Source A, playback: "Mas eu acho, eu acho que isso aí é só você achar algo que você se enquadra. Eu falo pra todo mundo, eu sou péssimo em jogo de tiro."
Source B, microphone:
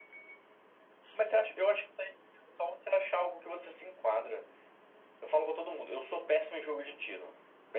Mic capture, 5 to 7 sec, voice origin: echo only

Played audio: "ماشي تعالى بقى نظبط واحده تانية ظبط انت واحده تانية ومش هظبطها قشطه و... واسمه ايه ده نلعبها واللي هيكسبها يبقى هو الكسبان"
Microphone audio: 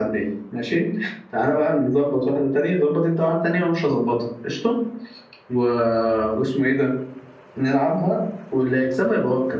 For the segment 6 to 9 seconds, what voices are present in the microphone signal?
echo only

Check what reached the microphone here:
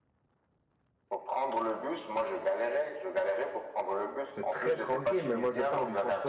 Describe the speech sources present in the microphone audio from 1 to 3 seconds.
echo only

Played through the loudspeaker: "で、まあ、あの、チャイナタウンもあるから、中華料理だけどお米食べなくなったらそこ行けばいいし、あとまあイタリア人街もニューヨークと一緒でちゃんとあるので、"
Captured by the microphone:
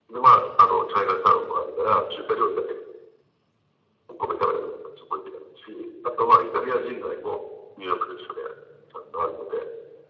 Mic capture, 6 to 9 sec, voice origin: echo only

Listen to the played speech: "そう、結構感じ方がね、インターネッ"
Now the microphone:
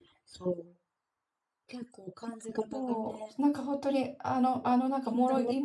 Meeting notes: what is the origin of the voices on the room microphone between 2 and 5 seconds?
both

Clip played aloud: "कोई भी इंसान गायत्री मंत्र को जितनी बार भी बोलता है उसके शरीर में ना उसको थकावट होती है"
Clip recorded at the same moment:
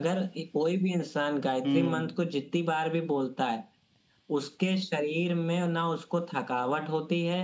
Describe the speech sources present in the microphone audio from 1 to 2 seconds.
both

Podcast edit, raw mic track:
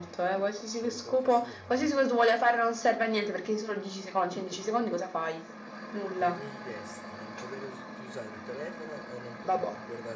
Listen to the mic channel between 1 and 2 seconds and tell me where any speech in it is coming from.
both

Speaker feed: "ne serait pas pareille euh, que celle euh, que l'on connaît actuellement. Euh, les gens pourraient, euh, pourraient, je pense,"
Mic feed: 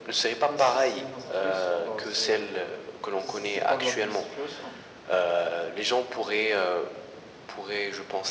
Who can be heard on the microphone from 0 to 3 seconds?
both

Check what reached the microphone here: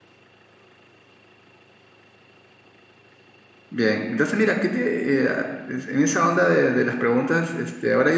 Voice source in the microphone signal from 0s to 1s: neither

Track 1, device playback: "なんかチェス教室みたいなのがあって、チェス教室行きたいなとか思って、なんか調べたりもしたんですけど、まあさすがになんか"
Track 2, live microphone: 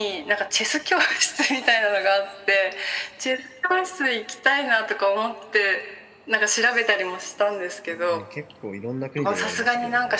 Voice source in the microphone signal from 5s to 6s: echo only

